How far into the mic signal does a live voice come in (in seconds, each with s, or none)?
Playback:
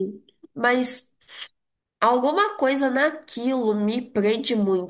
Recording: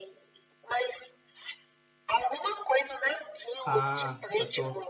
3.6 s